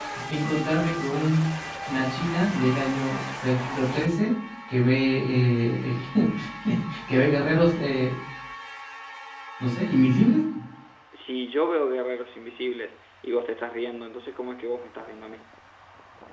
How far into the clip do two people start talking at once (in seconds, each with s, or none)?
none